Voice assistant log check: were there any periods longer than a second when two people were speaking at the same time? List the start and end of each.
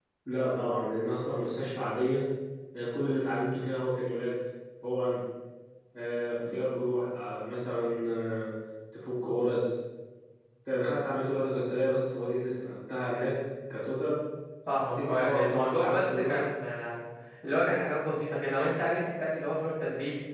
15.0-16.5

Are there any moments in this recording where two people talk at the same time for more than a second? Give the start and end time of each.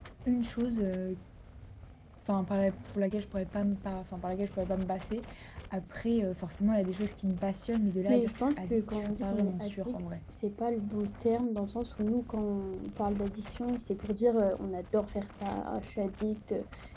8.1-10.0

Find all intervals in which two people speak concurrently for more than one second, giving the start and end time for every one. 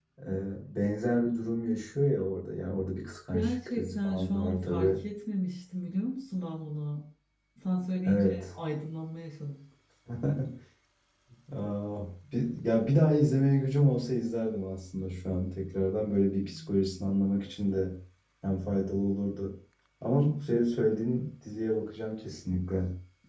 3.3-5.0

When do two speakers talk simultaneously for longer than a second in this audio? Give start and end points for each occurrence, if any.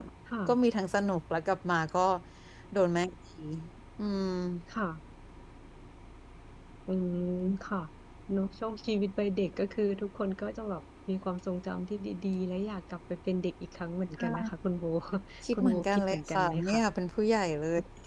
15.5-16.8

